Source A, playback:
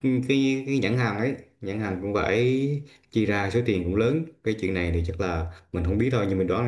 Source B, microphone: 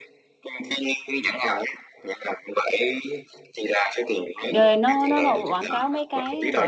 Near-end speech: present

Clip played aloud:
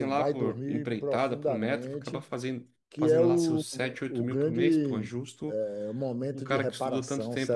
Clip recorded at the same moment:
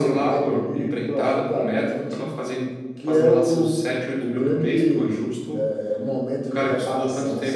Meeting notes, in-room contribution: none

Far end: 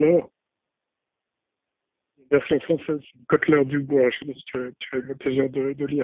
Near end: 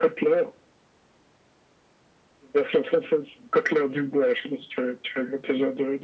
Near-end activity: none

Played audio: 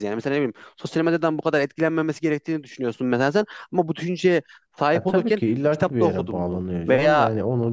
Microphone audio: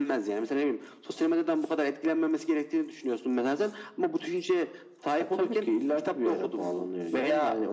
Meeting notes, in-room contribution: none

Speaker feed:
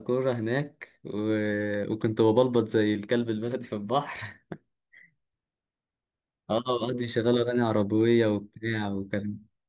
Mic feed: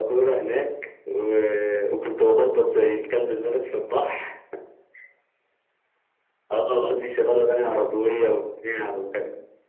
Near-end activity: none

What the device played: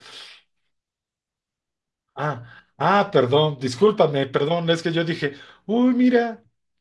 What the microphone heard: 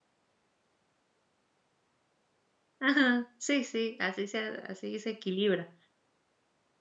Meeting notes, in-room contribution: present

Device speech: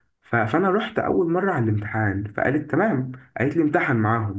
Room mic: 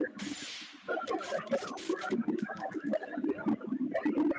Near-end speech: none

